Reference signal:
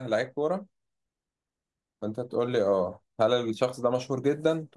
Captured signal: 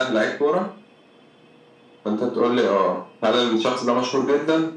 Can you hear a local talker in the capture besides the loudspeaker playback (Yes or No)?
No